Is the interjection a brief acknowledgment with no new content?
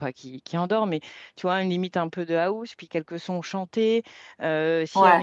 Yes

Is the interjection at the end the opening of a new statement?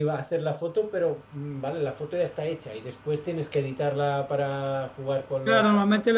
Yes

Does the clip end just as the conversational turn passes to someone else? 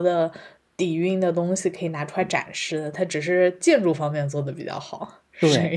Yes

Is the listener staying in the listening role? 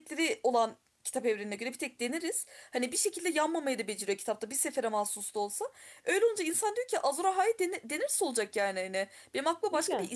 Yes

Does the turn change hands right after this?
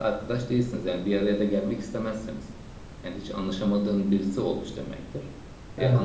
No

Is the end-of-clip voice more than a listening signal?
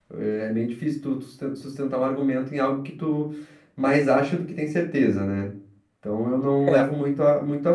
No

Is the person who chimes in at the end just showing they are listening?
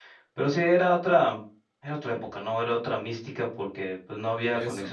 Yes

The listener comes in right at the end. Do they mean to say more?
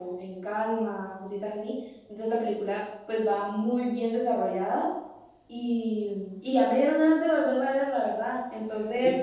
Yes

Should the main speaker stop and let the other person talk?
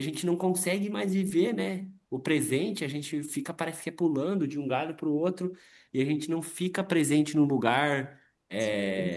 No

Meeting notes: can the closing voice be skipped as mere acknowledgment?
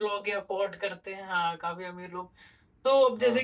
Yes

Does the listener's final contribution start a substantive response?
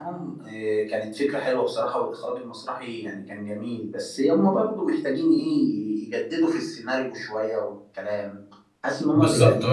Yes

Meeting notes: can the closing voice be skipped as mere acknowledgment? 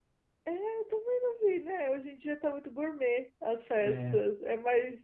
Yes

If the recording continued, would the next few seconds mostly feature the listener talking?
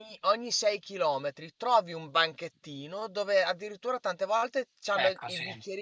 No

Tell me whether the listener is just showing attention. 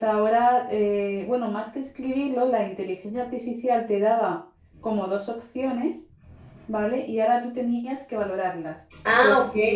Yes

